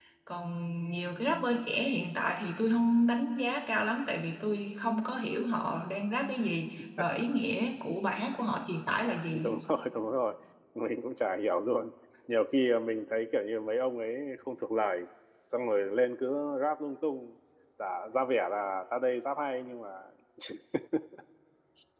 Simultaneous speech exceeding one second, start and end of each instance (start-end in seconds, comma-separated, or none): none